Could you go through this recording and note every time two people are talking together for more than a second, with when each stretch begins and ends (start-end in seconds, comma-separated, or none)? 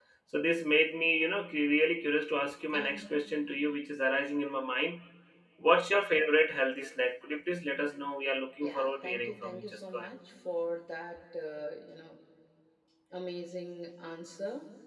8.6-10.1